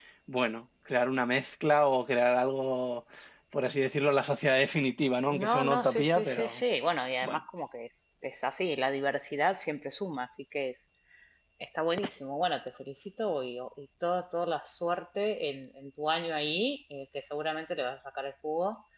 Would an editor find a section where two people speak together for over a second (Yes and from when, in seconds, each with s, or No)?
Yes, from 5.3 s